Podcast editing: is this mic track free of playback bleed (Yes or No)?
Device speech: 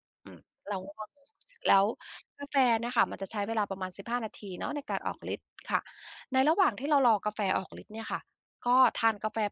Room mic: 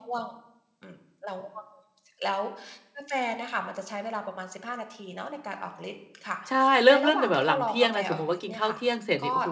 No